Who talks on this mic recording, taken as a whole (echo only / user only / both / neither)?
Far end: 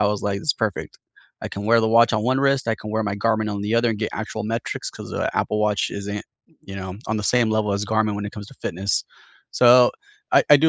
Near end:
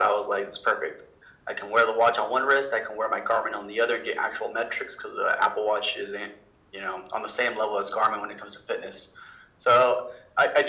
echo only